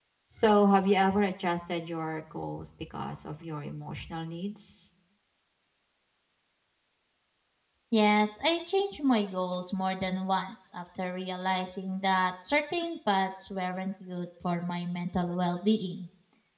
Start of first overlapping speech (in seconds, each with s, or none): none